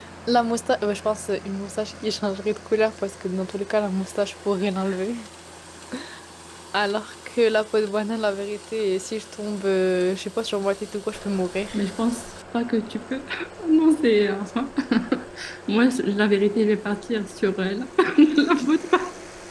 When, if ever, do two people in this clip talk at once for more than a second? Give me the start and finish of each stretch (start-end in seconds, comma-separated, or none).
none